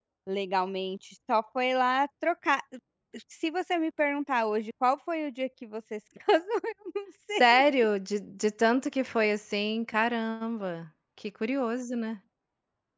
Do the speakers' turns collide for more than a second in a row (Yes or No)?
No